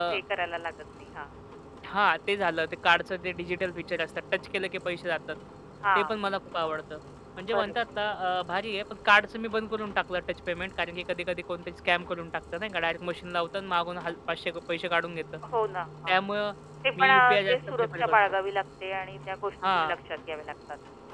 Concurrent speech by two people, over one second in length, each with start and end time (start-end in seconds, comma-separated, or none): 17.0-18.2